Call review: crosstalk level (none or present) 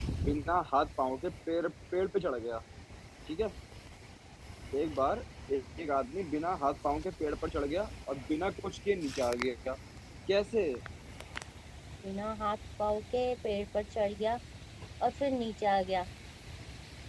none